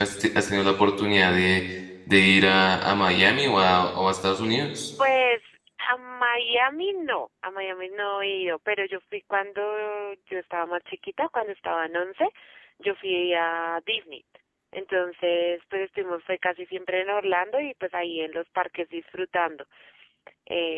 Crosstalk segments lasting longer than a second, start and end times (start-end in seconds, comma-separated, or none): none